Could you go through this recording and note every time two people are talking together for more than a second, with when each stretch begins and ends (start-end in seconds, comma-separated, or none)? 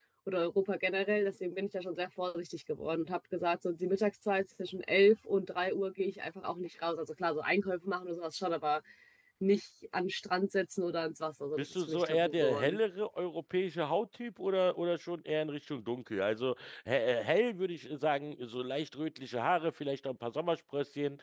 11.6-12.8